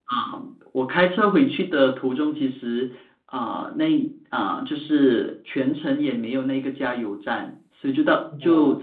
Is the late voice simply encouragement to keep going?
Yes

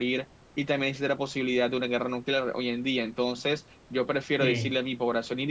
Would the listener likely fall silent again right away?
Yes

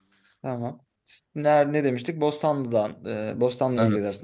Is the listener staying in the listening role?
Yes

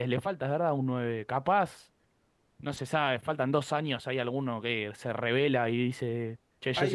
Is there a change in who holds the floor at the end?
Yes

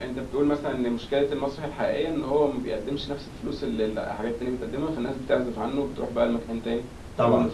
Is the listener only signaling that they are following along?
No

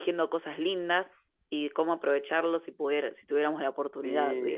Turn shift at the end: Yes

